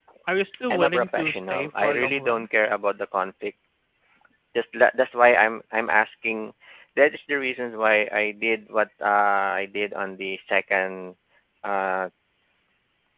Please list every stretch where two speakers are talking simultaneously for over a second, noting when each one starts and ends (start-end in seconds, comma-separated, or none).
0.7-2.5